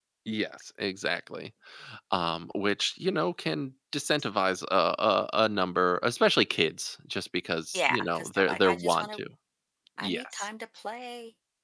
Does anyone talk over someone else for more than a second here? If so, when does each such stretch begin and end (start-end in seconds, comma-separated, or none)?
7.7-9.2